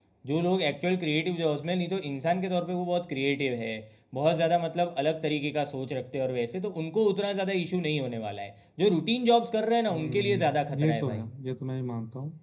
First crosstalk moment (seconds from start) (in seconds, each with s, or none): 9.9 s